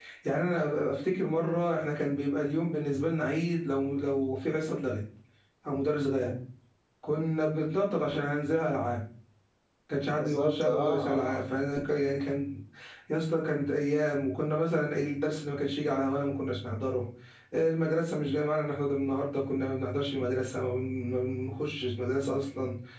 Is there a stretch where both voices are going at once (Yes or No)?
Yes